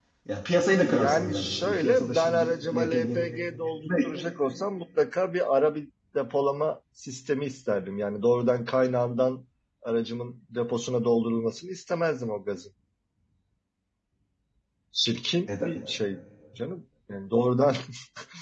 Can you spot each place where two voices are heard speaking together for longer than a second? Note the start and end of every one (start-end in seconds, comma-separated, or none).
0.8-3.2